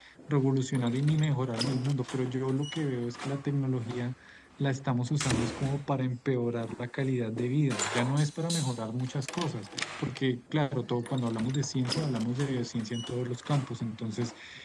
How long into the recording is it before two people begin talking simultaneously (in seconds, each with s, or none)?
none